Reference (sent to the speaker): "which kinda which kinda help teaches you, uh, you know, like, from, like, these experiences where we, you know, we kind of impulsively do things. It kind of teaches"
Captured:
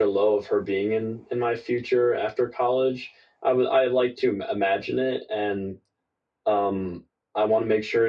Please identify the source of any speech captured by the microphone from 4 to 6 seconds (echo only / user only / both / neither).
user only